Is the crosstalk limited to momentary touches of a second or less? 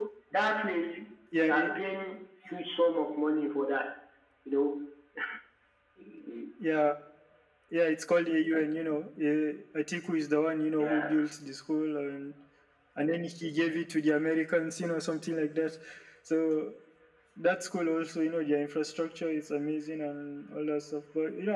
Yes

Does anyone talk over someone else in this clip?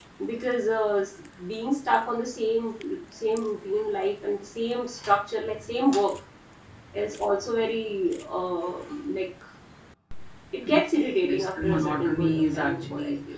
Yes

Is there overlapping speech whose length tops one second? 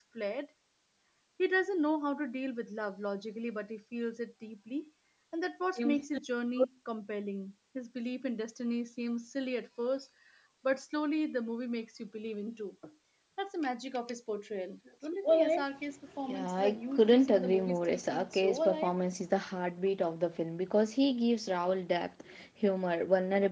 Yes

